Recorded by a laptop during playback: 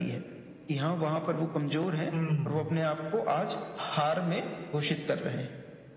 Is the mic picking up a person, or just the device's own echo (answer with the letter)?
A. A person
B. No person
A